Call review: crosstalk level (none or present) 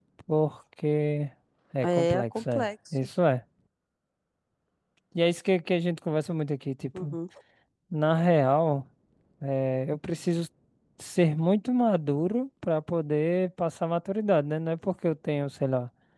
present